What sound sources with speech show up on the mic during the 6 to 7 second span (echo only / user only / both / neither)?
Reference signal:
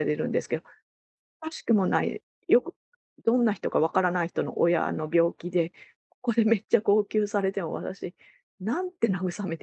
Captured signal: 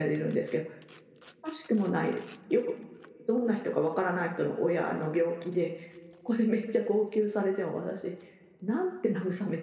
echo only